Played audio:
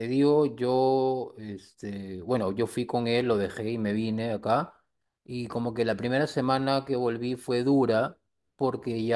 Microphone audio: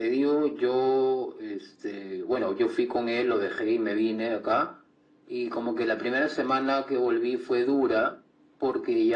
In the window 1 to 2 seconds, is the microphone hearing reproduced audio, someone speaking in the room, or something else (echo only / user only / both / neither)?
echo only